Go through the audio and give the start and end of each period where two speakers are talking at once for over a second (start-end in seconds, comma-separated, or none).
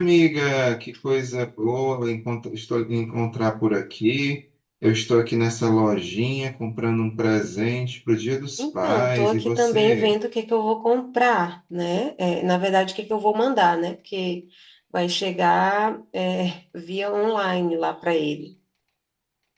8.6-10.1